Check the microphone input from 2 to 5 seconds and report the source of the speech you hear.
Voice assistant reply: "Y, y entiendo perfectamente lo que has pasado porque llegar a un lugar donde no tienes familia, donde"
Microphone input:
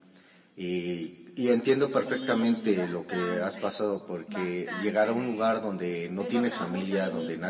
both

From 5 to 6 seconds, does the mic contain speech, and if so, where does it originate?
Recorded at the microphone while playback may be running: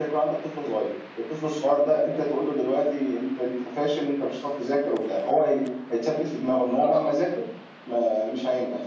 echo only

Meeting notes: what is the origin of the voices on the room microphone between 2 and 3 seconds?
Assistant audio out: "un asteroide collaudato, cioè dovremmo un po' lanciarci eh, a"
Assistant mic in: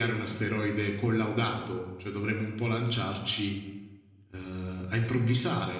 echo only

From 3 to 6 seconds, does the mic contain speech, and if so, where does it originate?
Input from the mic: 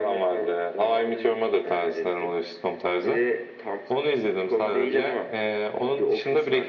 echo only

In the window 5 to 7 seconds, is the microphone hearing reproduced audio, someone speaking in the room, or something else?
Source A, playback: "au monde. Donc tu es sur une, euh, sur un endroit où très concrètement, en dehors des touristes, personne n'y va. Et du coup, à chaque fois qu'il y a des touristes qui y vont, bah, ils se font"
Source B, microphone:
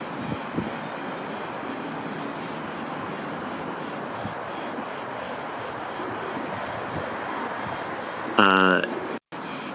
neither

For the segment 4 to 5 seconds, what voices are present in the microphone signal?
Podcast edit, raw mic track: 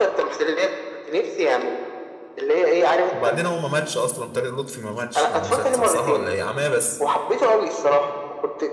user only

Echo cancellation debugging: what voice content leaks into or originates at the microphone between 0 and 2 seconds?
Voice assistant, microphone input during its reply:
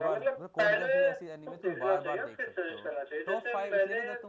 both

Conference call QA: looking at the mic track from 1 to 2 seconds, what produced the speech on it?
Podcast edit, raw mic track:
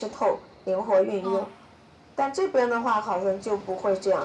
both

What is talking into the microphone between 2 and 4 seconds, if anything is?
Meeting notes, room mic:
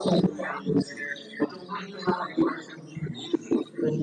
echo only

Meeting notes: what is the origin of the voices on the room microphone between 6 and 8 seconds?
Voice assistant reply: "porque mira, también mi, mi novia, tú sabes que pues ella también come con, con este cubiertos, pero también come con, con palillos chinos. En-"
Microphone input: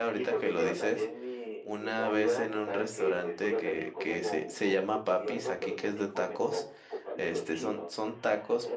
both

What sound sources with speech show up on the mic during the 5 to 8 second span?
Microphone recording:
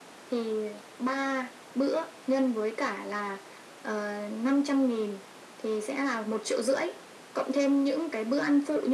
echo only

